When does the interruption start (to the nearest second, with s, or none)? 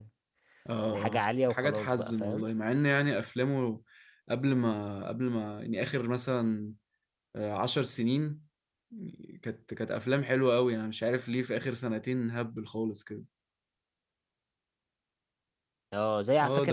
1 s